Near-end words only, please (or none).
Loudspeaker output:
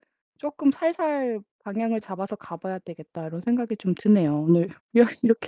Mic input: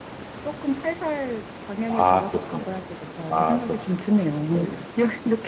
아 그렇습니다. 아 그렇습니다. 네네.